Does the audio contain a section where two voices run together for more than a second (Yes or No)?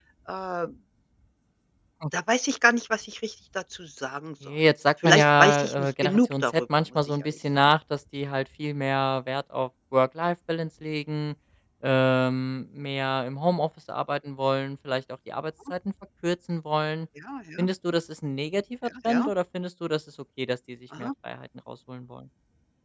Yes